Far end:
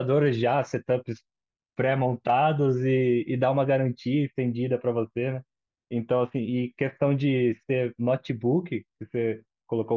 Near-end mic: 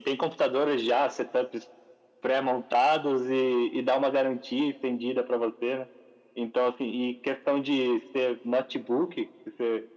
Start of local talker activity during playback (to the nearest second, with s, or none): none